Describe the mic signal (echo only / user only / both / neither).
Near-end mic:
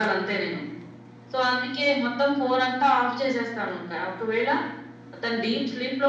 echo only